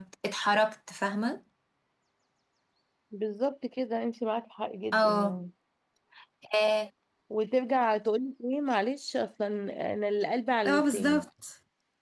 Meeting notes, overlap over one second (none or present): none